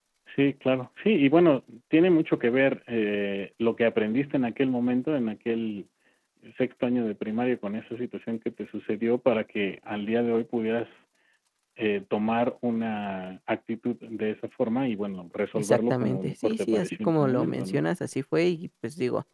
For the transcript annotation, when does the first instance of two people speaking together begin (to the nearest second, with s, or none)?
16 s